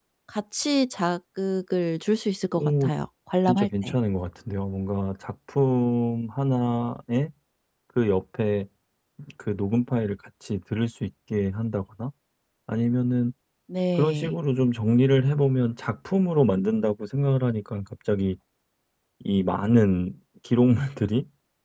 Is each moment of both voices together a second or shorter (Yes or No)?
Yes